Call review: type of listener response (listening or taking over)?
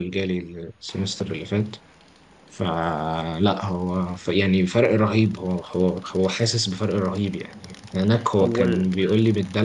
listening